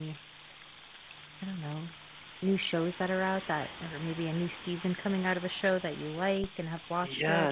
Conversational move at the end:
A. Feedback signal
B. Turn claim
B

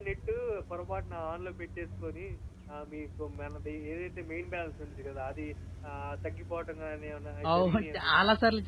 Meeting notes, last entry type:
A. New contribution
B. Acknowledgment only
A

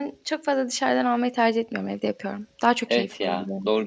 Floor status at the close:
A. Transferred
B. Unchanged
A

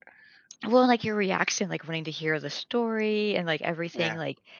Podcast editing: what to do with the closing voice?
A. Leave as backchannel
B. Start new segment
A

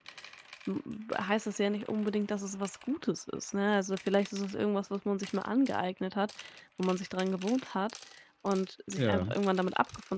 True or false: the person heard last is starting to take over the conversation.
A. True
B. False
B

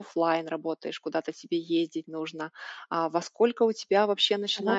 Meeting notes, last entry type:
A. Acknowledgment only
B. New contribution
A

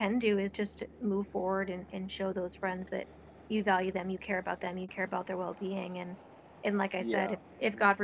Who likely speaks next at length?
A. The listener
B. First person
B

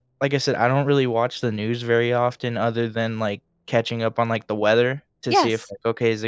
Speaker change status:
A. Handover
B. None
B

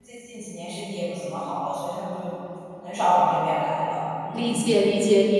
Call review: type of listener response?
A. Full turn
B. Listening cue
A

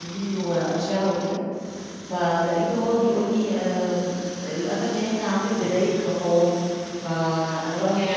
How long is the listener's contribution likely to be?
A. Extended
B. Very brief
B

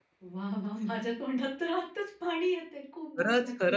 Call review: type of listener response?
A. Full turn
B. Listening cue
A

